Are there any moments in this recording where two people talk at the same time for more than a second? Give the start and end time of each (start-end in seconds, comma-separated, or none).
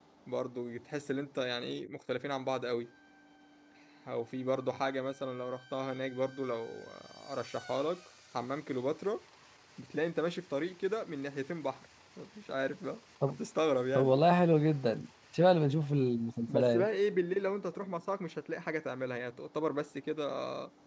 none